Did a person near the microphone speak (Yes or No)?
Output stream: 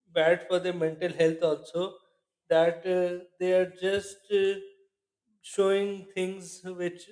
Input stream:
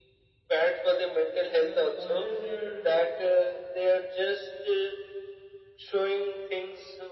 Yes